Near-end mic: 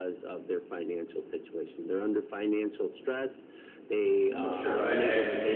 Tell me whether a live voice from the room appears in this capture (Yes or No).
Yes